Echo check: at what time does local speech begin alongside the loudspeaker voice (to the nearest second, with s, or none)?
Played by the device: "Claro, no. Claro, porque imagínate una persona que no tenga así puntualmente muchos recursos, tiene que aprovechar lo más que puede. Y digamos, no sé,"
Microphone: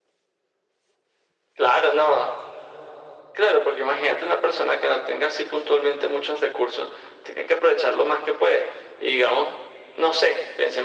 none